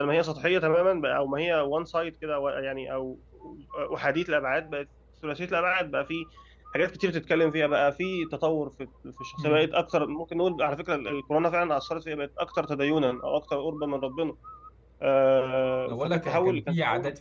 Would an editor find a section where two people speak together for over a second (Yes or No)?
Yes